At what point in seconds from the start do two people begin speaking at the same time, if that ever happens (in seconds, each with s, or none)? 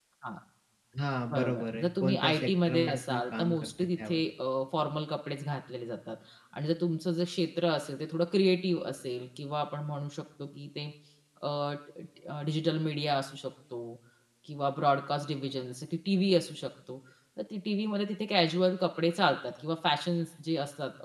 1.3 s